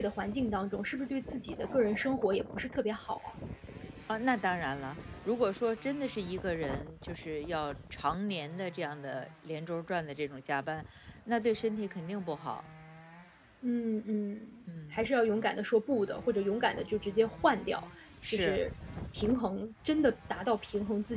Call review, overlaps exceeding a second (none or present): none